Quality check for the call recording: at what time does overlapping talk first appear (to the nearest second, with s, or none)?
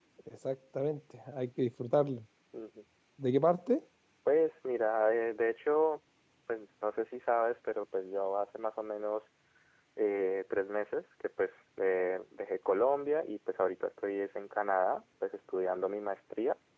none